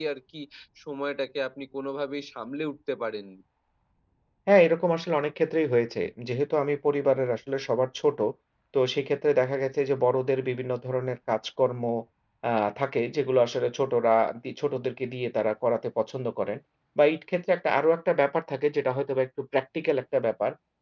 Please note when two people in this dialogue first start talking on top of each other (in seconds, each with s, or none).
none